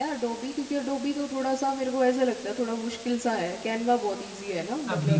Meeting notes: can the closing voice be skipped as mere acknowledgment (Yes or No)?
No